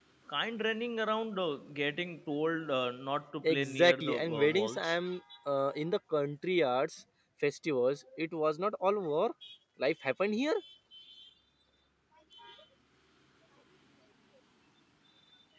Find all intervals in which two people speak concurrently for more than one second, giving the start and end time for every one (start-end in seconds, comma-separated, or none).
3.4-5.0